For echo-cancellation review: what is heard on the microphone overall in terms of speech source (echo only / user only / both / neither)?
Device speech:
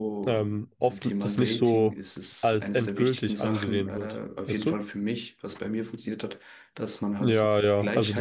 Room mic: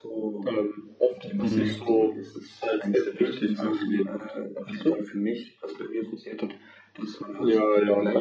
both